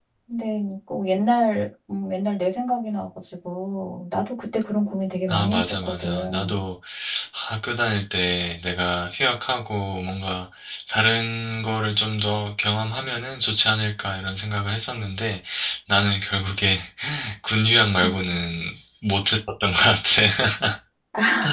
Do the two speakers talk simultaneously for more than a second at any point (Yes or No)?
Yes